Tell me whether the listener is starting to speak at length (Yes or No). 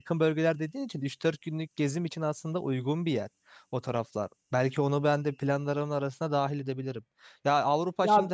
No